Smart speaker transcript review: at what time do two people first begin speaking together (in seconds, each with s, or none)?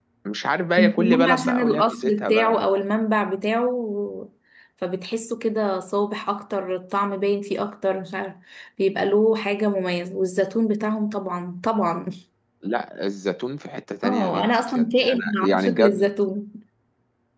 0.8 s